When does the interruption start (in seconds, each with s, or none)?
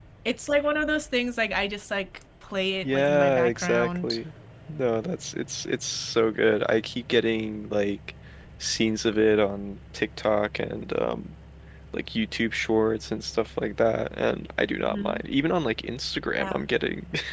2.8 s